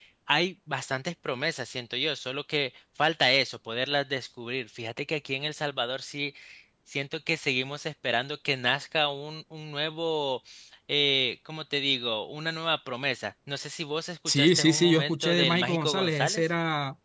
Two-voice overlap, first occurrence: 14.3 s

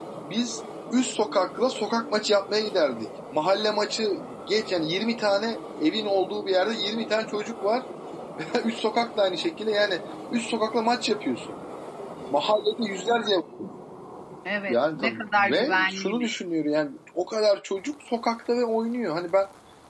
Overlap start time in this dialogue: 14.7 s

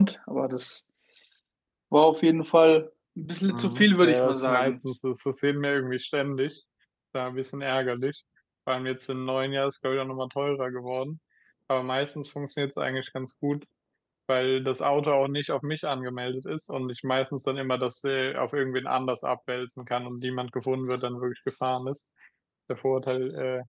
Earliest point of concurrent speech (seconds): 3.5 s

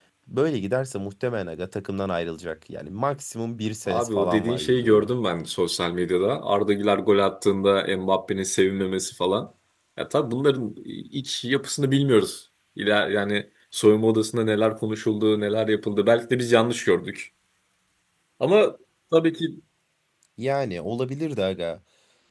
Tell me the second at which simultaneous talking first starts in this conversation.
3.9 s

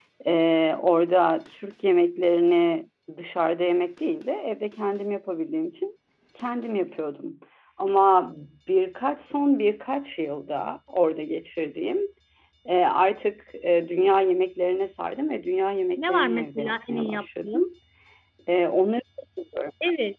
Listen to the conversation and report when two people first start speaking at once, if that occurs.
16.0 s

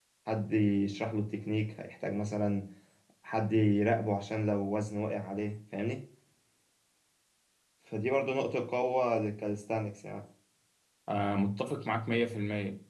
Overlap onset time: none

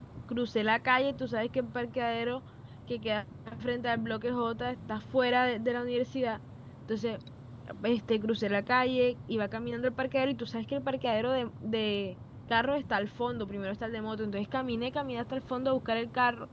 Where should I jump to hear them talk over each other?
none

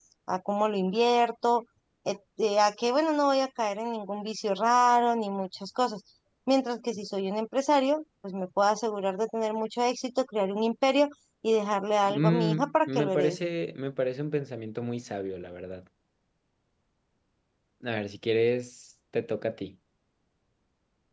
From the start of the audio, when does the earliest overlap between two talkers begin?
12.1 s

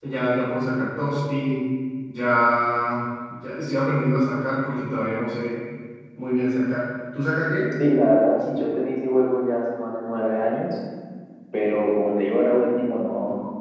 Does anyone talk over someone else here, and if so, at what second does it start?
none

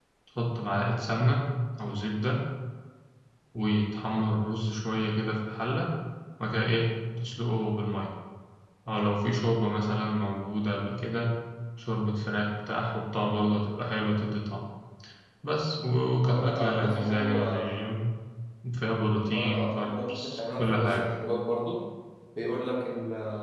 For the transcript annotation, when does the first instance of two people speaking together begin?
16.2 s

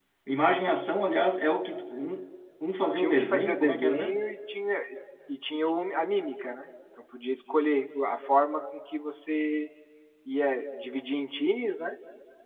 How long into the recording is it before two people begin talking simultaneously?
3.0 s

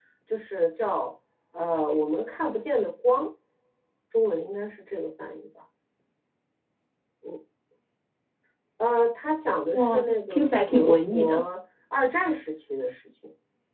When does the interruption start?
9.7 s

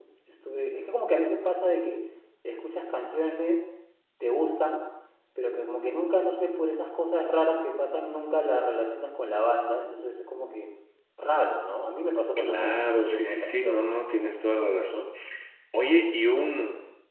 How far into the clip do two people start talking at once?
12.4 s

